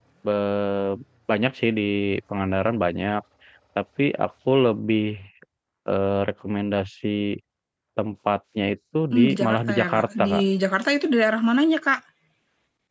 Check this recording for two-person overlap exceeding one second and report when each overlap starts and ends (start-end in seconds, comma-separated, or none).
9.1-10.4